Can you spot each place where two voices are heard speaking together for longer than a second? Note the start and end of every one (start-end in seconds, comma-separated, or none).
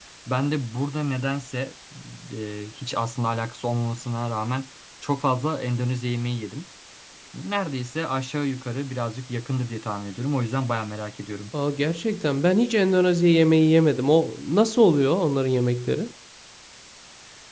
none